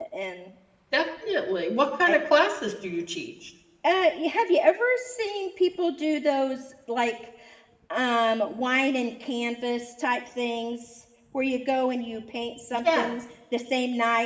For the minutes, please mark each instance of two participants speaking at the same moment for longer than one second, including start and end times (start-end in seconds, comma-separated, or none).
none